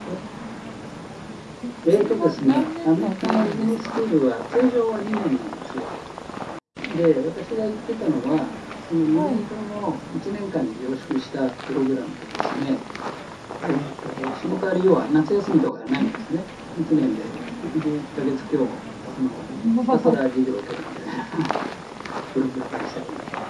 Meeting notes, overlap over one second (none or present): present